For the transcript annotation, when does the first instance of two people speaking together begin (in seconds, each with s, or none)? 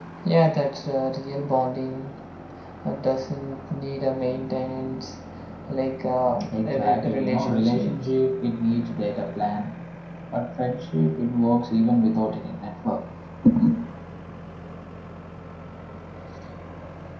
6.4 s